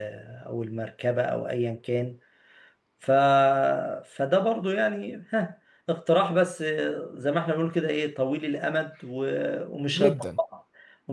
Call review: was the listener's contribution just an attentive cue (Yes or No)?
Yes